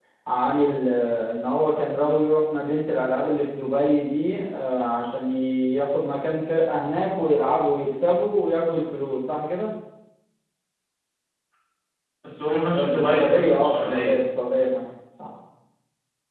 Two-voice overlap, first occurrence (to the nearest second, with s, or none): 13 s